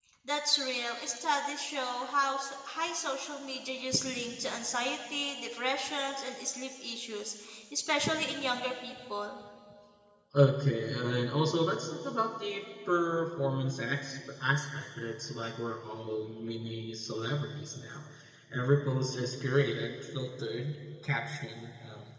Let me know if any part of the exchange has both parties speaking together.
No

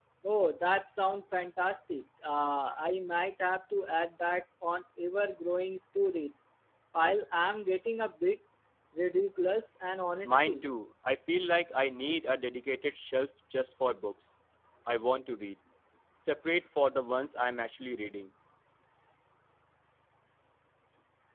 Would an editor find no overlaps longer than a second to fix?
Yes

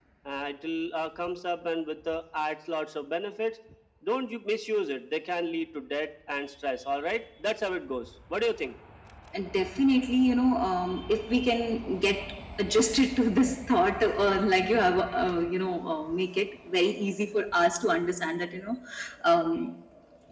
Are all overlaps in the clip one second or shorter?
Yes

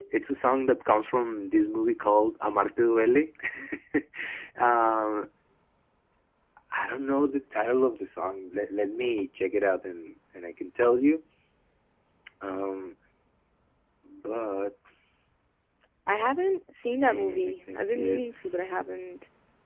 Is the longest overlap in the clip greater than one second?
Yes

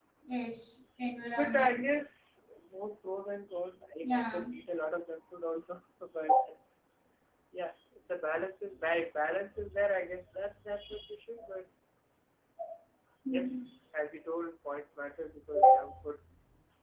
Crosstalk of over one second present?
No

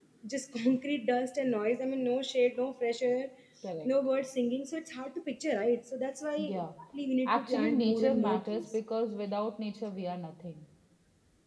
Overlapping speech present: Yes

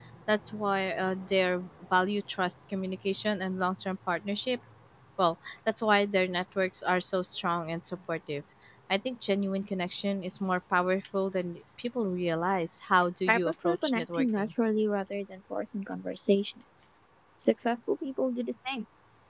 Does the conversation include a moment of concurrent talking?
Yes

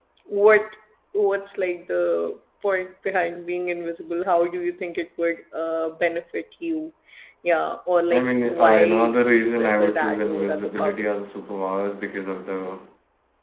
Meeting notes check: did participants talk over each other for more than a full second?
Yes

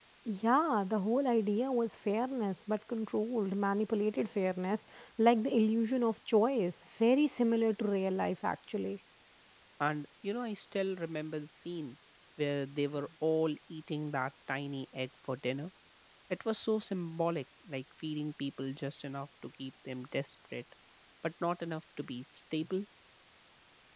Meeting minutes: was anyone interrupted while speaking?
No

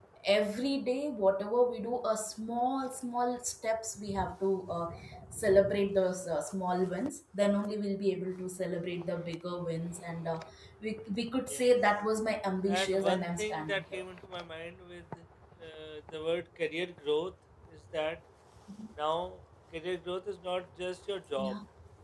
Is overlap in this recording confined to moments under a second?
No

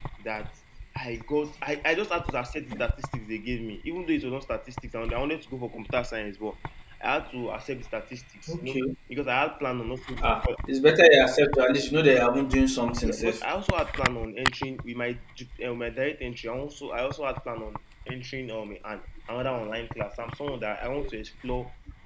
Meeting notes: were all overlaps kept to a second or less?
Yes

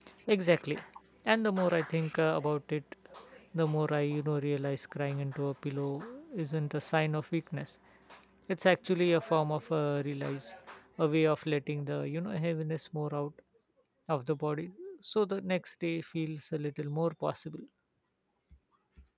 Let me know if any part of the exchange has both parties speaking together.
No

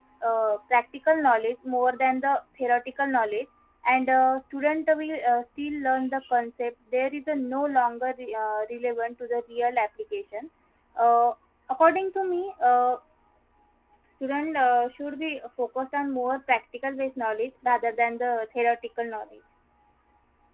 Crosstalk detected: No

